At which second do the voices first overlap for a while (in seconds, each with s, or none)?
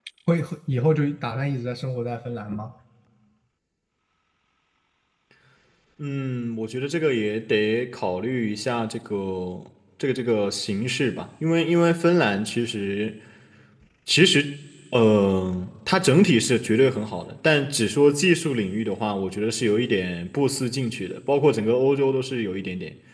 none